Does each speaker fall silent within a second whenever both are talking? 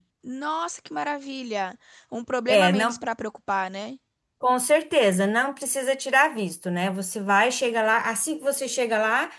Yes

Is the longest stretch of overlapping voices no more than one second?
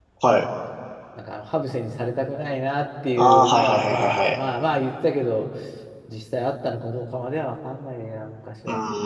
No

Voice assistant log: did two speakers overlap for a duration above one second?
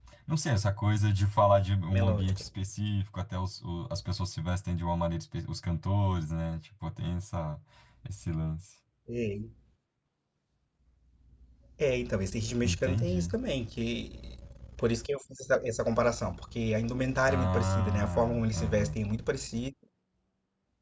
Yes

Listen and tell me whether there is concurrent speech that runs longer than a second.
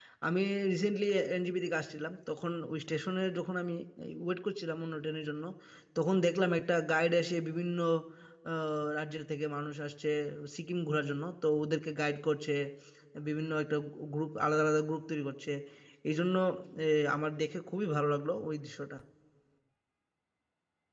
No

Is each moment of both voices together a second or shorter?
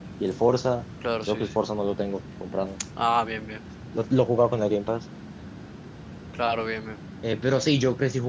Yes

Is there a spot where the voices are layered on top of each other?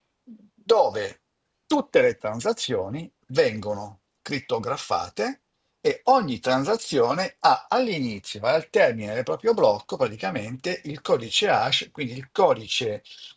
No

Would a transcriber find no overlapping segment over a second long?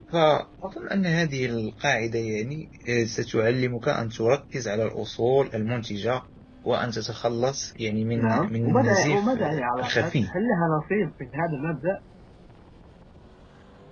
No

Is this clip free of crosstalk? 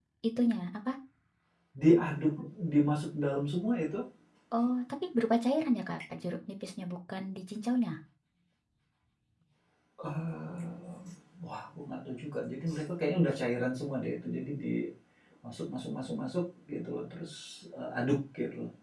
Yes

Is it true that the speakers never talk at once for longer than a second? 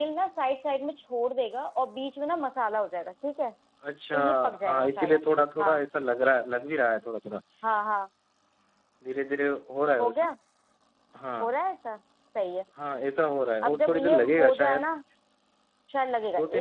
No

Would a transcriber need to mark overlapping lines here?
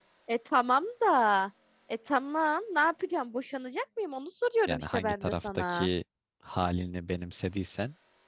Yes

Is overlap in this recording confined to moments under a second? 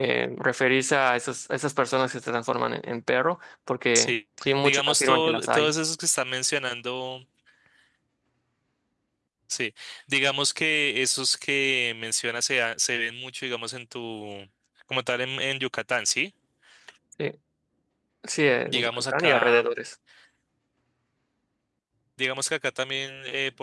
No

